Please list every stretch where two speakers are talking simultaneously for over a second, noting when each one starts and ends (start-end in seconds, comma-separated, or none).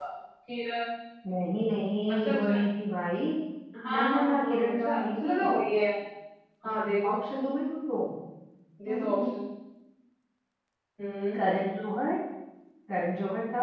3.9-5.3